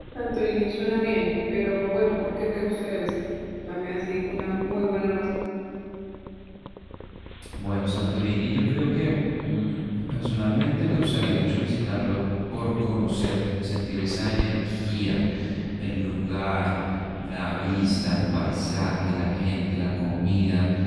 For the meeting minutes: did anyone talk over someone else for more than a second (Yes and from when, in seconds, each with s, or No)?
No